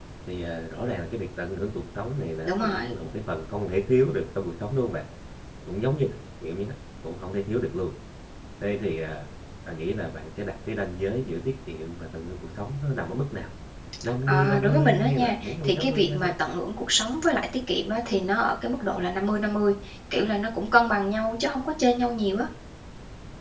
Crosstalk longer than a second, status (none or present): present